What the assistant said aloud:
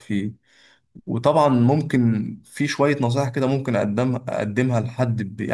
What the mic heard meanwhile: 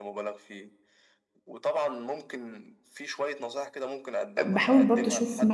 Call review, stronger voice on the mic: user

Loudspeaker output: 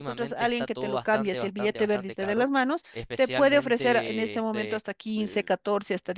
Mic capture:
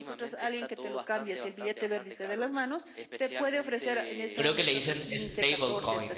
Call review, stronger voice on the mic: user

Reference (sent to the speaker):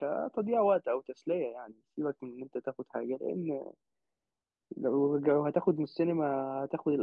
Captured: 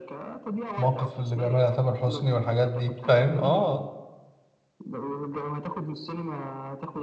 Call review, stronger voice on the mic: user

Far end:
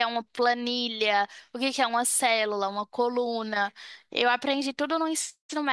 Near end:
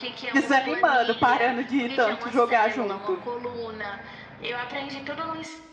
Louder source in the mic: user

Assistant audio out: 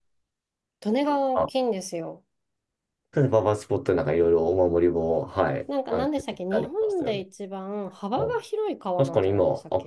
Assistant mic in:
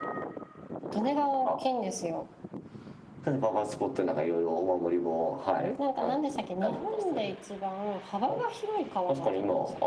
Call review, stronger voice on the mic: echo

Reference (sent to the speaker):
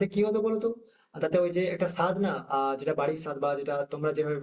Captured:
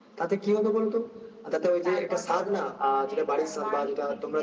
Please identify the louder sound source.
echo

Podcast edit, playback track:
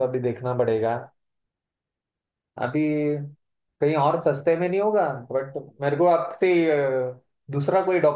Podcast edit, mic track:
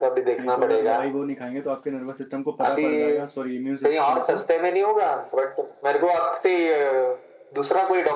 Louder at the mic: echo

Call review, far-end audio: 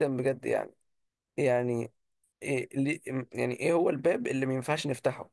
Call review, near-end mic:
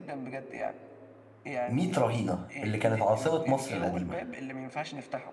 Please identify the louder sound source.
user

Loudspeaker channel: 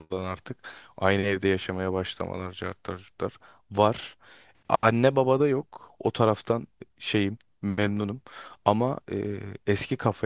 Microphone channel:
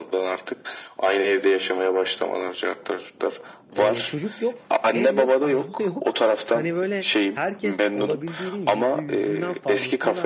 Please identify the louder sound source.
echo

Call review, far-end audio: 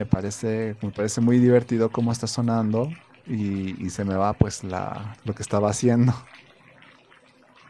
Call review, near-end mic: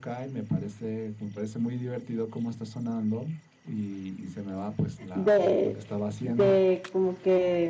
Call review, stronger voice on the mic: user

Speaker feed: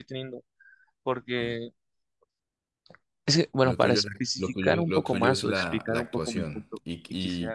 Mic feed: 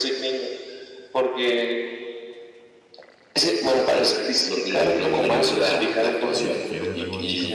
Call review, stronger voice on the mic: echo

